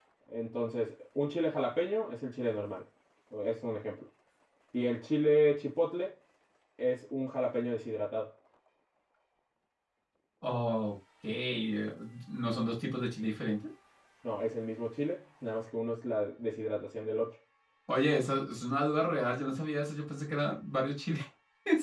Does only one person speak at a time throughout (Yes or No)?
Yes